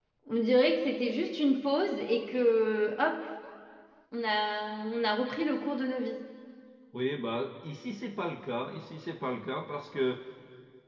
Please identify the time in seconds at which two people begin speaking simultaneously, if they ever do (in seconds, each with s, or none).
none